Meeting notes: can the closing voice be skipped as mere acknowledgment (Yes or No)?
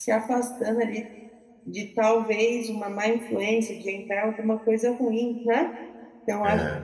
Yes